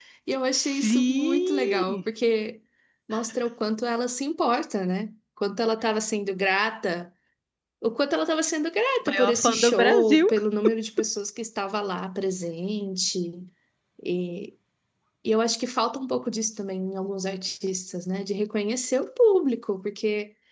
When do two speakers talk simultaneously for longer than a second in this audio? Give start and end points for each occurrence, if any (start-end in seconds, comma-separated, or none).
0.6-2.0, 9.1-10.3